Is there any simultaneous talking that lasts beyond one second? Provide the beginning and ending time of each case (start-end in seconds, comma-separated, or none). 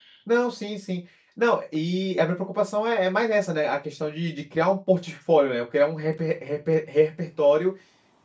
none